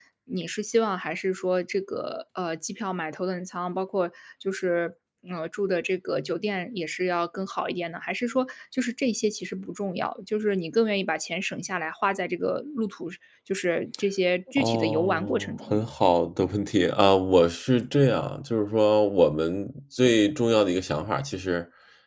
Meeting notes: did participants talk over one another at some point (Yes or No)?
Yes